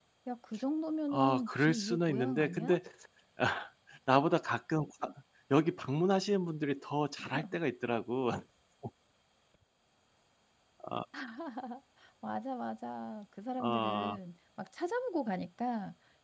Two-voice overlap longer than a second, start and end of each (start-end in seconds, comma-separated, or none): 1.1-2.8